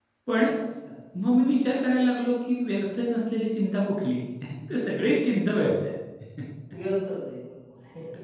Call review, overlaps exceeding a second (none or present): none